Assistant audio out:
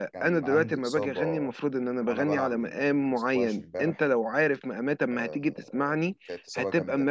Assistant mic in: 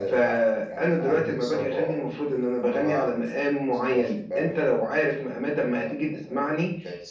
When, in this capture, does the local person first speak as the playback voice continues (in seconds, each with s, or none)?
none